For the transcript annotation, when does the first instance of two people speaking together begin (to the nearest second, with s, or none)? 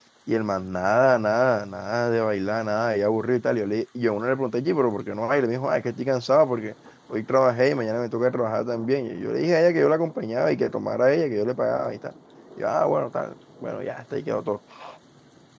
none